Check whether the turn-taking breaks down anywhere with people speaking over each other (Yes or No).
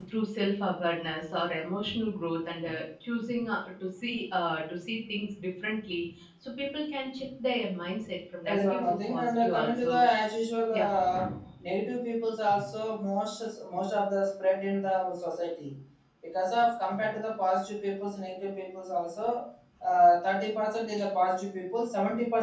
Yes